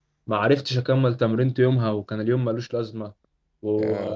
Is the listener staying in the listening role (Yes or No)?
Yes